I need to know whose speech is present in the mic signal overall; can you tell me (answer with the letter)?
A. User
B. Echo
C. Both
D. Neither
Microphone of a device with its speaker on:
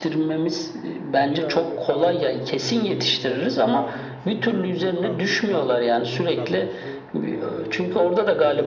C